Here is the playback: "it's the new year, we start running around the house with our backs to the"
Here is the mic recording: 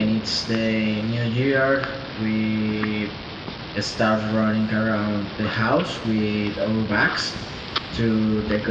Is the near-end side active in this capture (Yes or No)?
No